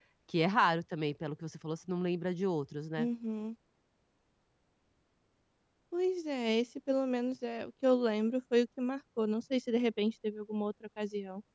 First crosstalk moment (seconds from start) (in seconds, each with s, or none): none